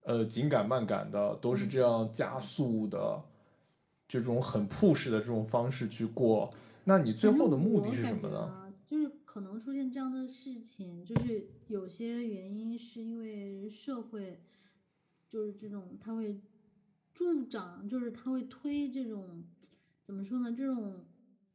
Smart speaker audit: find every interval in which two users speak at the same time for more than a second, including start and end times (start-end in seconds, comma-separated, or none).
7.2-8.5